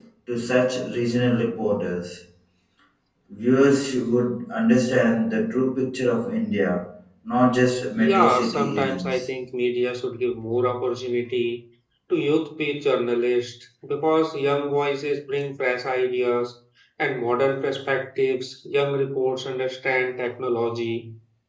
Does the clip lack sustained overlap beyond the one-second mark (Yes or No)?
No